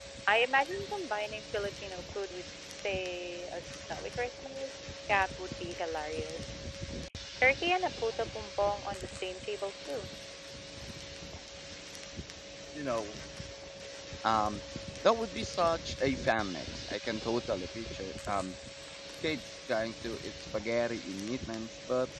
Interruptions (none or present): none